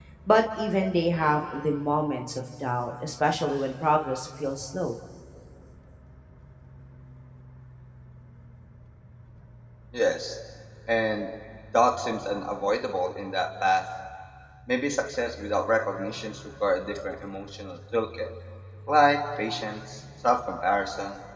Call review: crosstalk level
none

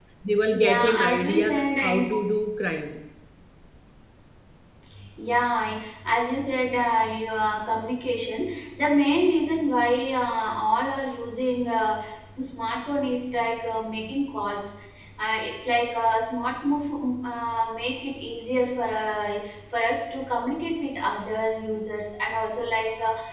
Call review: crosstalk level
present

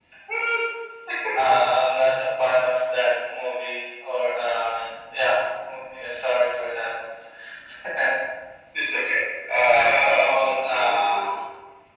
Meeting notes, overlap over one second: present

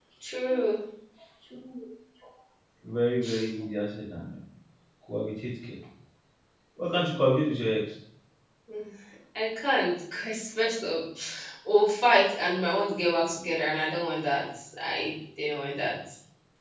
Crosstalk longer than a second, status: none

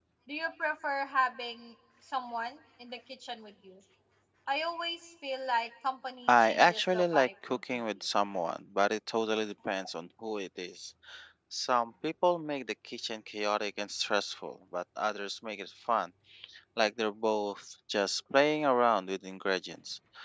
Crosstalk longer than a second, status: present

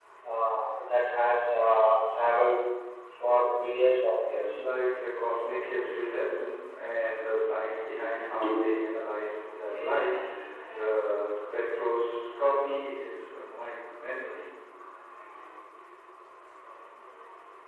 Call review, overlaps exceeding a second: none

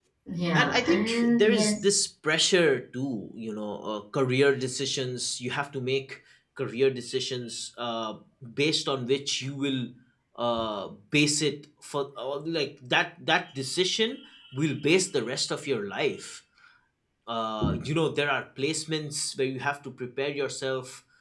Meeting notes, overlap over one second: present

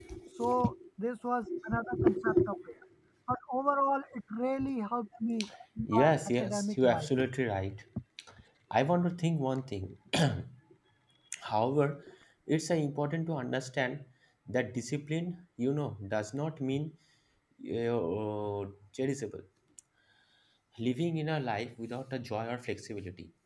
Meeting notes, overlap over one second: present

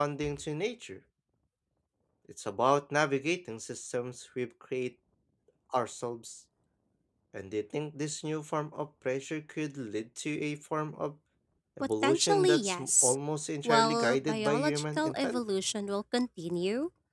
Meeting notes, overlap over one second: present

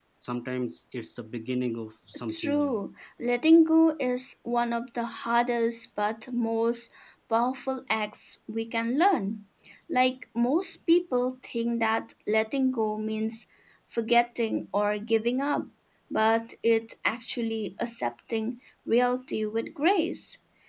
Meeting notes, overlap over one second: none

